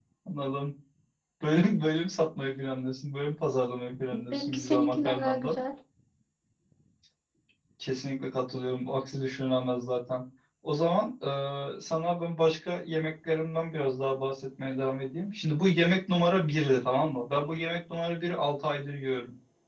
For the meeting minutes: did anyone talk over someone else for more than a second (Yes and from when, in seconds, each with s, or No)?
Yes, from 4.1 s